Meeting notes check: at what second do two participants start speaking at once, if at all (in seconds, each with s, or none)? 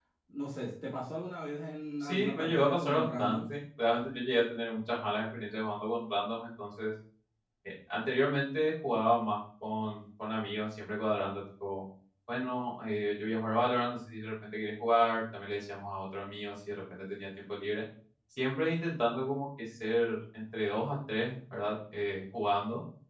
2.0 s